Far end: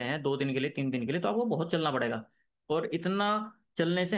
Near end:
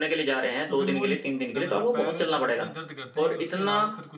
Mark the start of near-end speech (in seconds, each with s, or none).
0.7 s